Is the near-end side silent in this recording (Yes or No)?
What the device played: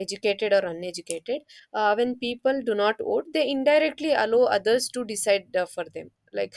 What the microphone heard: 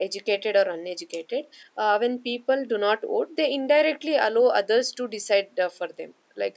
Yes